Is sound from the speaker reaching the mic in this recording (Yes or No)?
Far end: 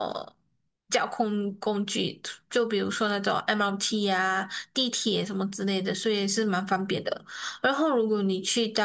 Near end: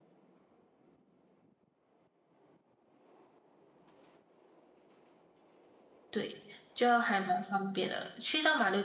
No